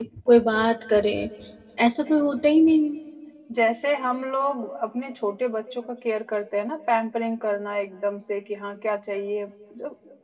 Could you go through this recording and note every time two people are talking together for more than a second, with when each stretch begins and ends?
none

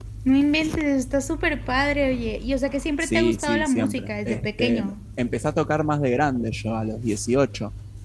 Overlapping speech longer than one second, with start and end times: 3.0-4.9

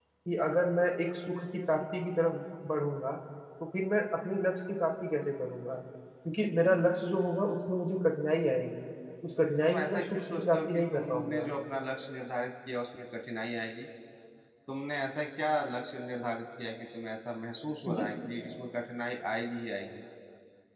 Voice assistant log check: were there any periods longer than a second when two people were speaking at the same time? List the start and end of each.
9.6-11.5

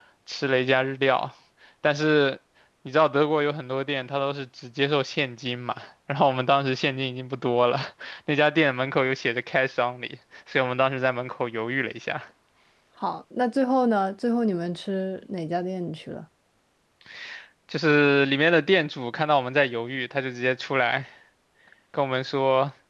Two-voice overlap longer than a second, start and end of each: none

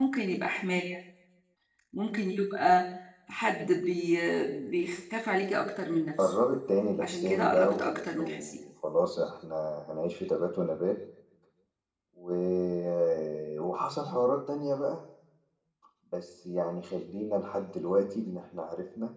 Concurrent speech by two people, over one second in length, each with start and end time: 7.0-8.6

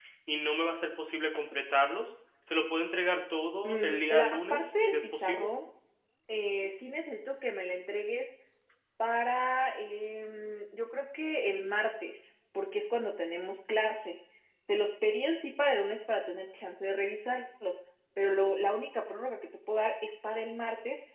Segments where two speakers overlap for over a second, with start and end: 3.6-5.5

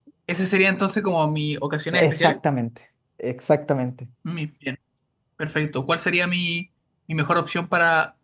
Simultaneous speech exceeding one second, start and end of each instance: none

